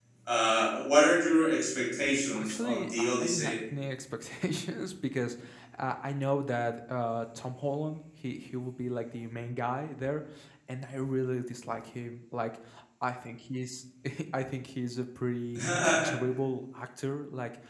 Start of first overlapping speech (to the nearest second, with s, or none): 2 s